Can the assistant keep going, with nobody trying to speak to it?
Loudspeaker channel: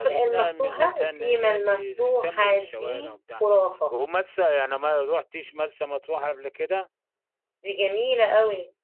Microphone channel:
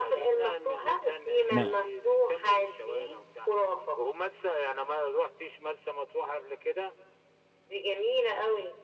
No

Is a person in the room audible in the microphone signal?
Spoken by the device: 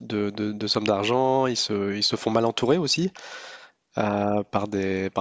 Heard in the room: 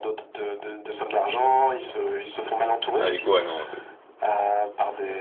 Yes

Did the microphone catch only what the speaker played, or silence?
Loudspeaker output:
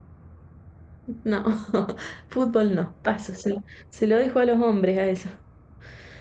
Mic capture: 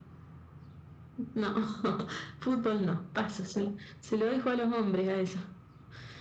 Yes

